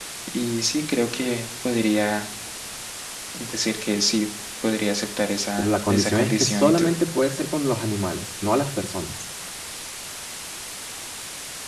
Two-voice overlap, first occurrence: 5.6 s

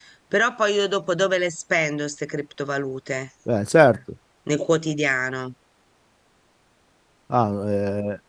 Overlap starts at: none

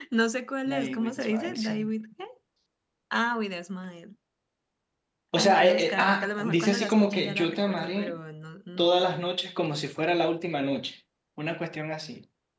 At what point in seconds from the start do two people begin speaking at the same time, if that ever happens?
0.7 s

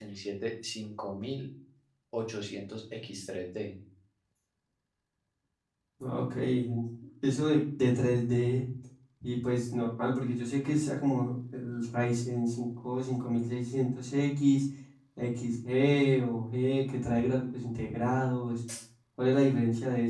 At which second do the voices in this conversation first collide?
none

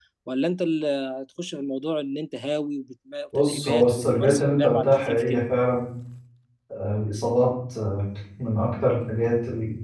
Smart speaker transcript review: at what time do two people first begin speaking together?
3.3 s

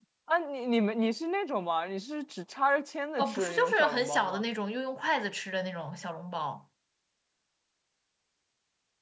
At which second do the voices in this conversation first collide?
3.2 s

